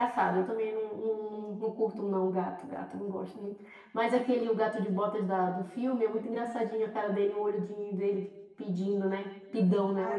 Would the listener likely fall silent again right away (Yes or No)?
No